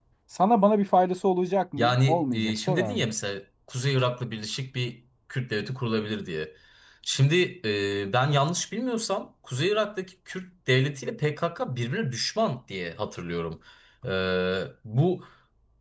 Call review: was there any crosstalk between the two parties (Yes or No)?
Yes